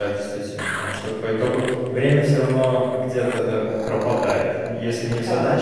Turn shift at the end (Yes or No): No